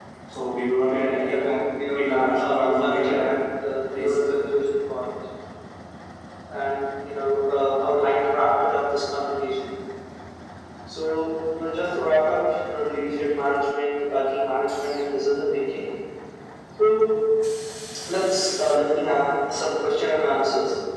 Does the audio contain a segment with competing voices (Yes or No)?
Yes